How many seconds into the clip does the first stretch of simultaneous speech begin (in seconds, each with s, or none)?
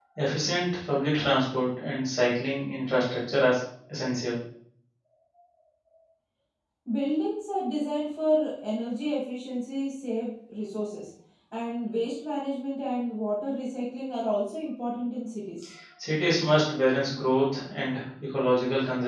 none